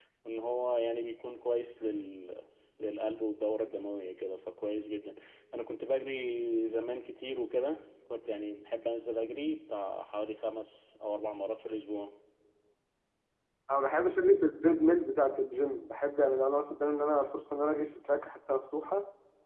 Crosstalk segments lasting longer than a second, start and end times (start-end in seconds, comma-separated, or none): none